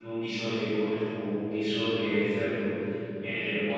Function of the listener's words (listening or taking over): listening